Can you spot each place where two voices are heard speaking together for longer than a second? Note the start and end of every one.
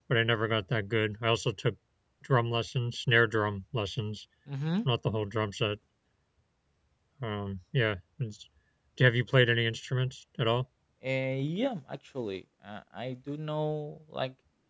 none

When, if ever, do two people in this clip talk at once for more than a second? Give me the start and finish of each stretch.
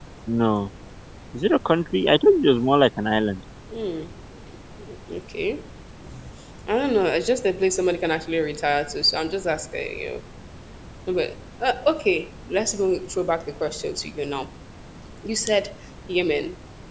none

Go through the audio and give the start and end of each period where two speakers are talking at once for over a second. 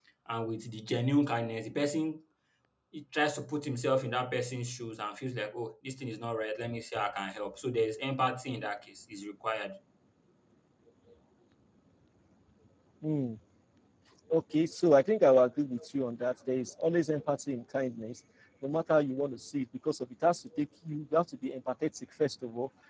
none

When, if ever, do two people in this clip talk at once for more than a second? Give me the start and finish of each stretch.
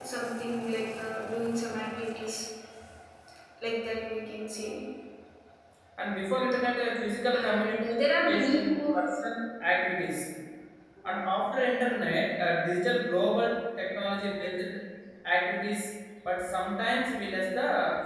7.3-9.0

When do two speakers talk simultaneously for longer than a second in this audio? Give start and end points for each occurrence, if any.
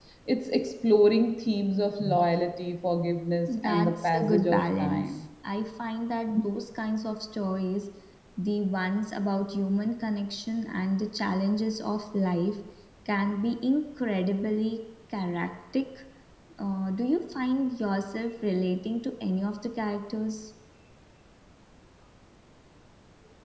3.6-5.2

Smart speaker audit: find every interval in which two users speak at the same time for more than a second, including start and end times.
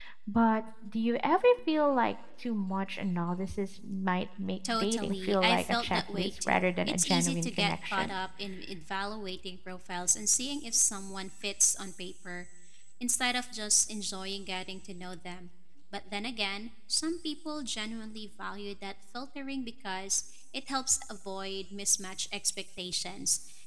4.7-8.1

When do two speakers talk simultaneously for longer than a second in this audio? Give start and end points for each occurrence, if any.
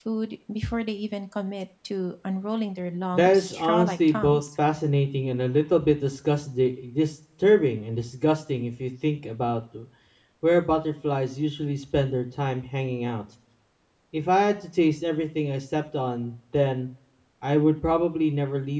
3.1-4.4

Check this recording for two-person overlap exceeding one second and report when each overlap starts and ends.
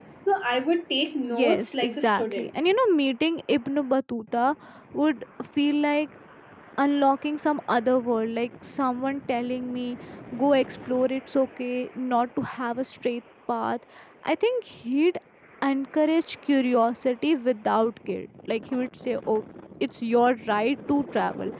1.2-2.5

